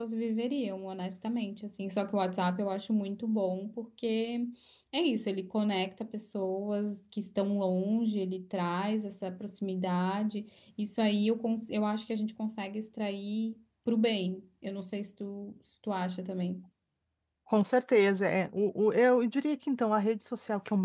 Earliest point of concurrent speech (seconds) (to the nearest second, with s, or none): none